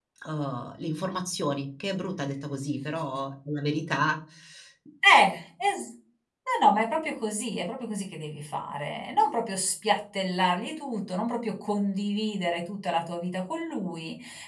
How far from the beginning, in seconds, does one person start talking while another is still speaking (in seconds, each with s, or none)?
none